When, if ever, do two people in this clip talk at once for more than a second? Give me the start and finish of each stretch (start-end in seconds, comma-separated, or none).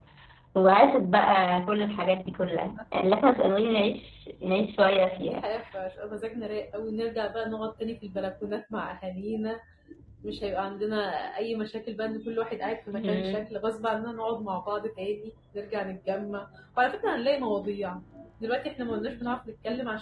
none